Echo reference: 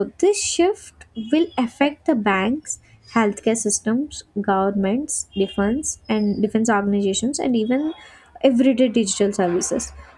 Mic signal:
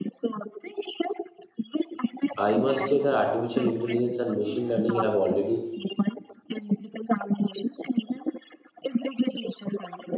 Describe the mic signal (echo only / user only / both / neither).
both